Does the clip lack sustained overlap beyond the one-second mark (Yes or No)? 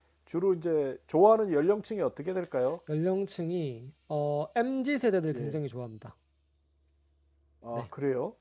Yes